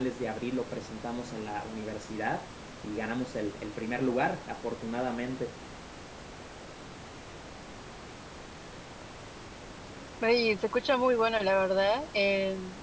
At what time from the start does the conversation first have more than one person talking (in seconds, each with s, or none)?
none